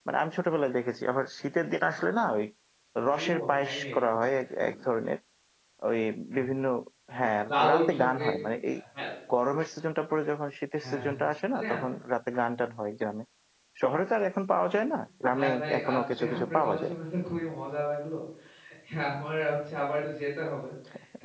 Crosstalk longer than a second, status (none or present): present